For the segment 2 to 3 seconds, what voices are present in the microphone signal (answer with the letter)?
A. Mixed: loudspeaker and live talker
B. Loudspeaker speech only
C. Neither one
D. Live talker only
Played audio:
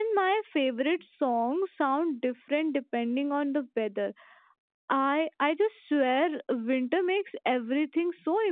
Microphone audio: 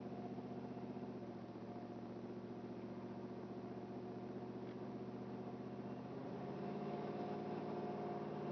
C